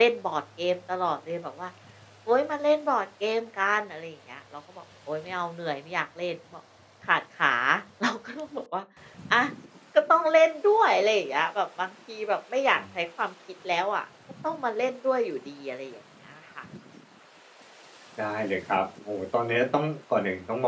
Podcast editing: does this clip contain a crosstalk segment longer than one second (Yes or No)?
No